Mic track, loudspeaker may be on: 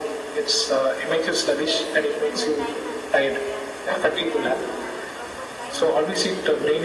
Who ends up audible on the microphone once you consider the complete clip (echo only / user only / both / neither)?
both